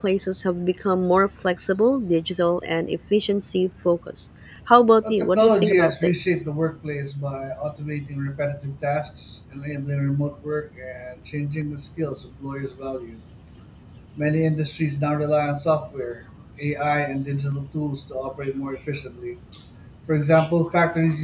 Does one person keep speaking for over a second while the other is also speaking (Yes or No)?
Yes